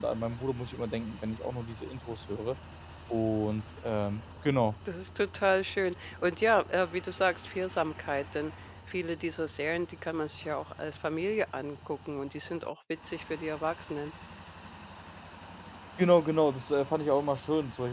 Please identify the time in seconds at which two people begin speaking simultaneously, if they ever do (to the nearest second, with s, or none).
none